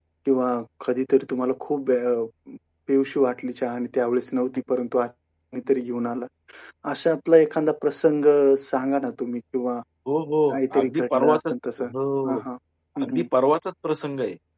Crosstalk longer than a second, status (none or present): present